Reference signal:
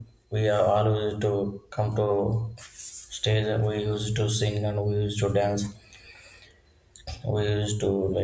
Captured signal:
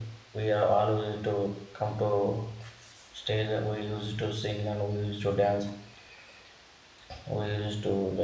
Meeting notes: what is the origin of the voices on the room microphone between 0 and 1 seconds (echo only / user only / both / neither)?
echo only